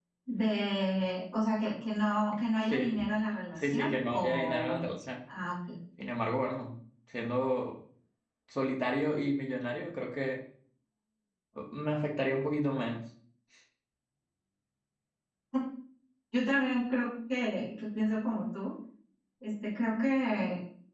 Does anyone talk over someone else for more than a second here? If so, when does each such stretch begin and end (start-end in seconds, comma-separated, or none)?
3.5-4.8